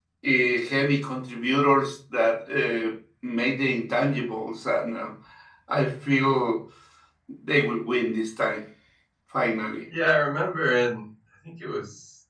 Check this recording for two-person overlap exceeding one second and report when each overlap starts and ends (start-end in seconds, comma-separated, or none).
none